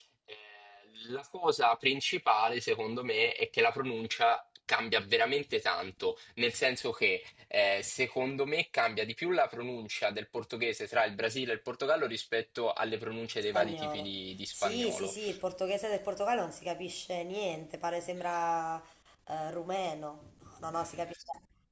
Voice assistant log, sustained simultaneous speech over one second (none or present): present